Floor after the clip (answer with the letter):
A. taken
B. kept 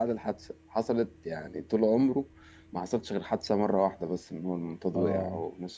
B